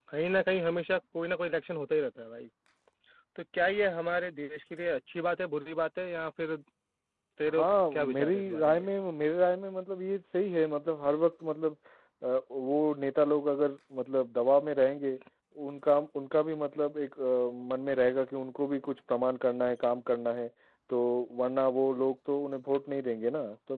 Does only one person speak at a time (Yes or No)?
No